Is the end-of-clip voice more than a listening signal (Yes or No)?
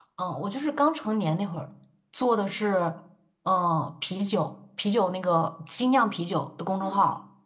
Yes